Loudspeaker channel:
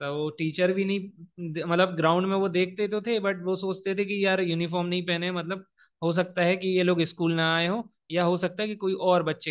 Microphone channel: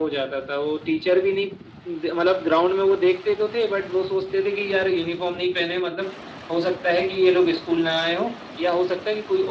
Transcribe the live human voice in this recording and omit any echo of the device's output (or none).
none